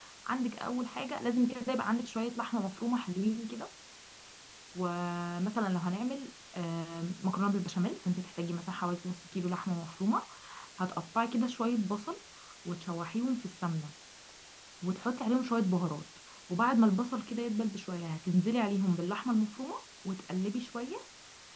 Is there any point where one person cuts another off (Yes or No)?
No